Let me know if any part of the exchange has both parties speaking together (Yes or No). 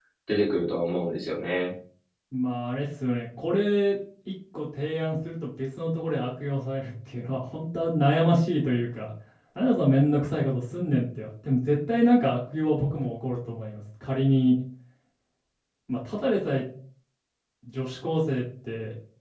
No